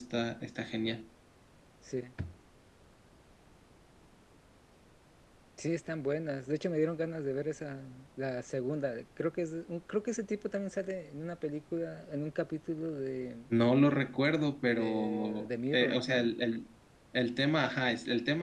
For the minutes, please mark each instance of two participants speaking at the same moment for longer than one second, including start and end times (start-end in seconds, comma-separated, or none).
14.7-16.3